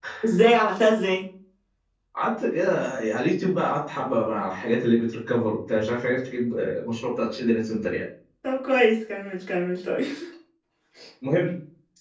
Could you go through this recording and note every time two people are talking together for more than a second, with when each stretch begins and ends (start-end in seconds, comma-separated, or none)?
none